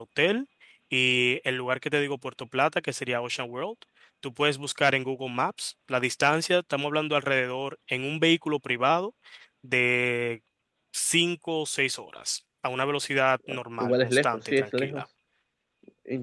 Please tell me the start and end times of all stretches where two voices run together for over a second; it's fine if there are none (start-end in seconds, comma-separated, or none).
13.5-15.0